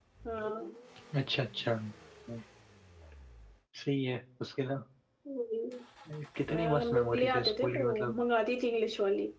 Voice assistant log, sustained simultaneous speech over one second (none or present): present